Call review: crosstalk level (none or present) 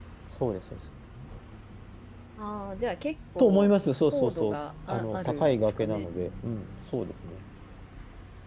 present